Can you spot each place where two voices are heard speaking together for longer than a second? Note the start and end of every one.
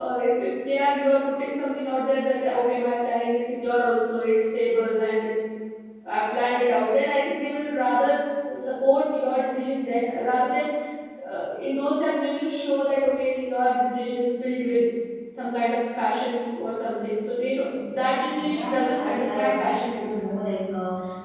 18.4-20.2

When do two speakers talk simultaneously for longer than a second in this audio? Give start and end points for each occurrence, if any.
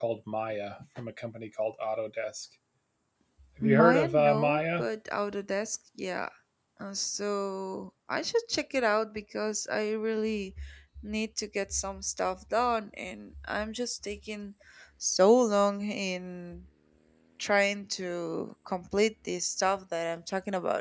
3.6-4.8

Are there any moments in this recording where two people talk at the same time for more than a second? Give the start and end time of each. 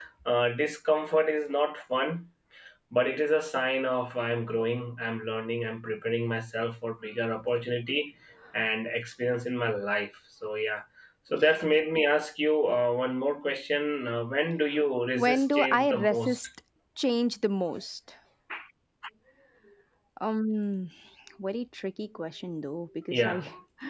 15.2-16.4

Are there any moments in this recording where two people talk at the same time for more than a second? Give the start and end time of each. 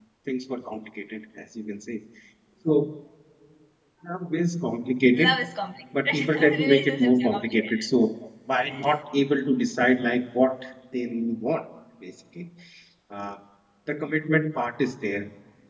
6.0-7.9

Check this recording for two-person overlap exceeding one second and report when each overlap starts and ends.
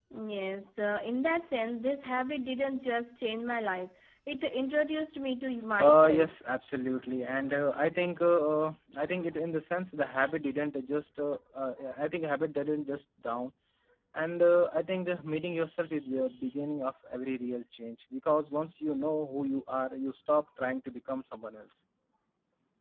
none

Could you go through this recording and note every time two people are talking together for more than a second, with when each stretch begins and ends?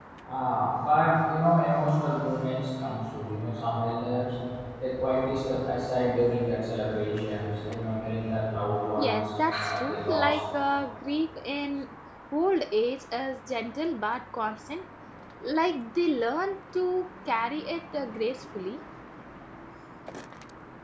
9.0-10.4

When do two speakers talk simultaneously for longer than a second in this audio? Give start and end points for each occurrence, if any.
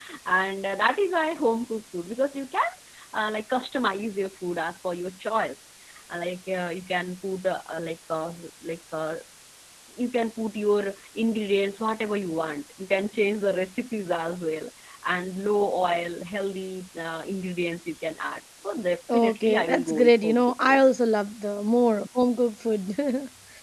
19.1-20.8

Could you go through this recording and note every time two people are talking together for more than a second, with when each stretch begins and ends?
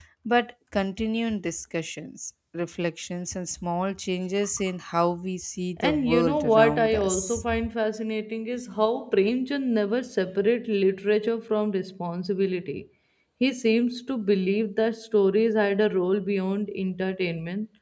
5.8-7.4

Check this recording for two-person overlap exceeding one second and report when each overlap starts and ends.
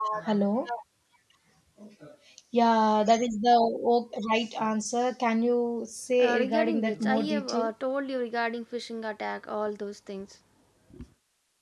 6.2-7.7

